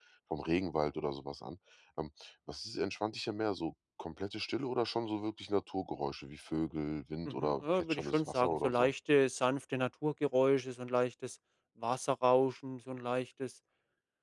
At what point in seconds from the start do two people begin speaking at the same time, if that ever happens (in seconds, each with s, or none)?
7.2 s